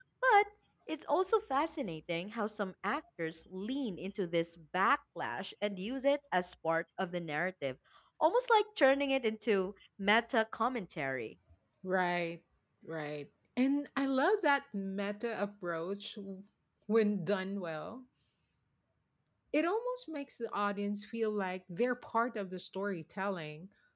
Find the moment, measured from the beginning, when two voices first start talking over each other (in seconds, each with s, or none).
none